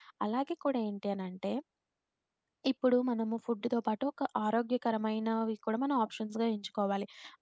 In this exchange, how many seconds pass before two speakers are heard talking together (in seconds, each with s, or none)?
none